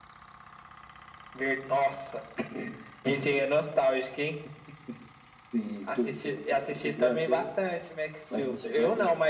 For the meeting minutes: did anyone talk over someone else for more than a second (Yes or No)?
Yes